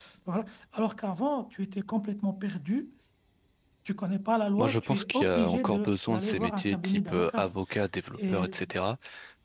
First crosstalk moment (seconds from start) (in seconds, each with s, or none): 4.6 s